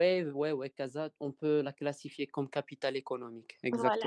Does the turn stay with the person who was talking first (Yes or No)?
No